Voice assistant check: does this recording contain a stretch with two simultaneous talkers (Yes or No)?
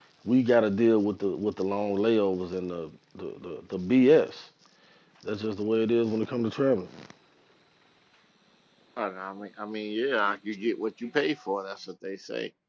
No